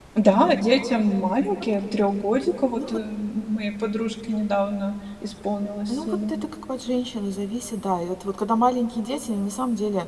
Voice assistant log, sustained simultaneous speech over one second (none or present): none